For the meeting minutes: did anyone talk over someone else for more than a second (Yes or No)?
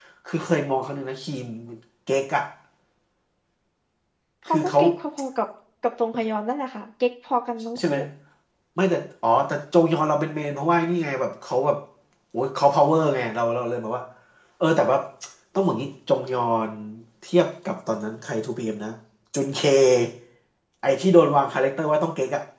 No